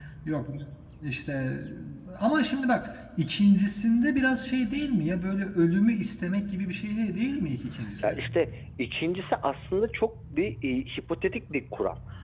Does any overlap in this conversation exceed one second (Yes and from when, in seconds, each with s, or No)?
No